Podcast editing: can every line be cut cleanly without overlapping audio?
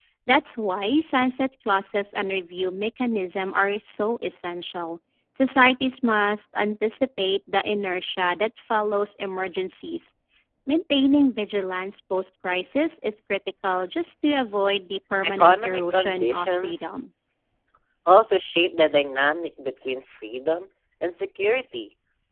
No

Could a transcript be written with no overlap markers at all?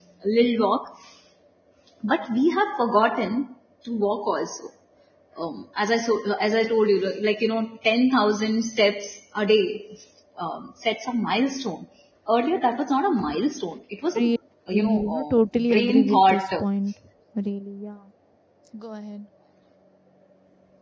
No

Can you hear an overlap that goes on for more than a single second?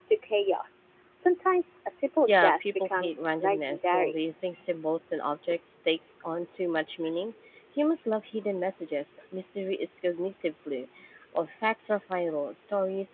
Yes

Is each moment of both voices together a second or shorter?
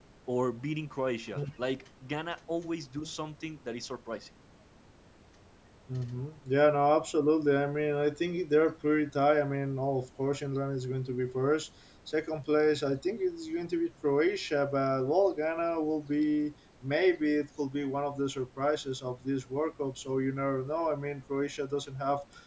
Yes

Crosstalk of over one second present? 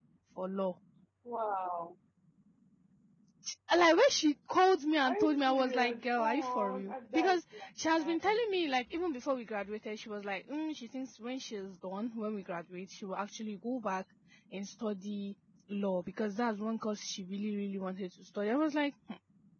Yes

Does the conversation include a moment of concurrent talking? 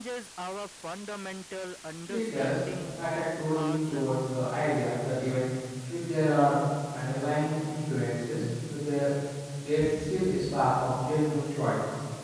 Yes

